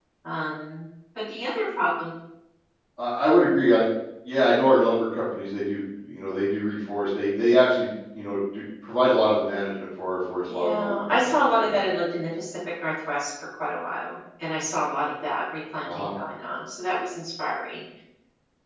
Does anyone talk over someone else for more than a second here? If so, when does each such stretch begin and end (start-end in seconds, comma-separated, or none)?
10.5-11.8